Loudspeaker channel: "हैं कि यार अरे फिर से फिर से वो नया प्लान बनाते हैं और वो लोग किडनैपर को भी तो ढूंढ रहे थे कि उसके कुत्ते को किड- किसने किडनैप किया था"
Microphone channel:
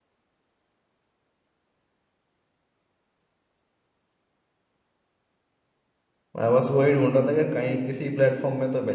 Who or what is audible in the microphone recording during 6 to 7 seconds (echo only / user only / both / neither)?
user only